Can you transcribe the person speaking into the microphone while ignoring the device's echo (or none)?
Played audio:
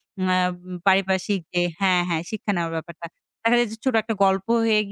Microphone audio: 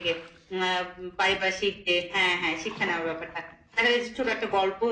none